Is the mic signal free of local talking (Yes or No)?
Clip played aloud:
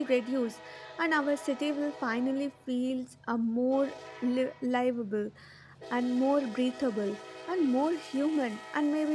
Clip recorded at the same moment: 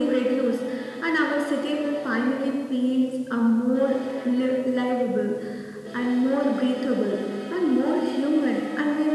Yes